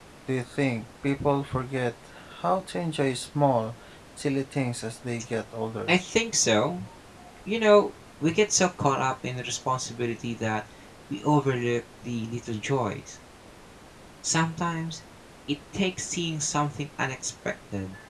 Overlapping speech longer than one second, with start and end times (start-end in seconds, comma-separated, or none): none